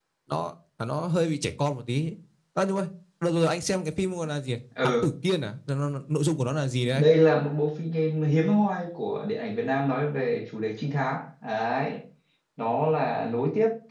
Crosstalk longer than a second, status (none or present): none